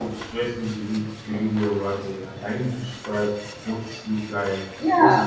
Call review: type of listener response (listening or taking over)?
taking over